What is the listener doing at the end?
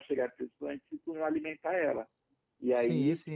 listening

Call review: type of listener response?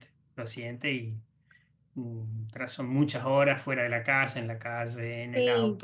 taking over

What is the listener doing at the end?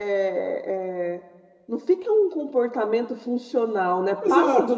taking over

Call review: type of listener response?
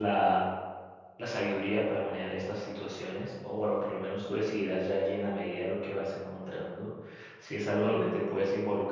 listening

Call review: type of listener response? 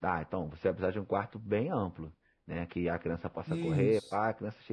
listening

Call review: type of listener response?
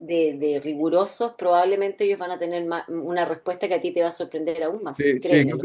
taking over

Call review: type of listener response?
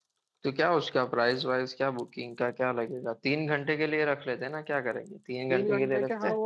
taking over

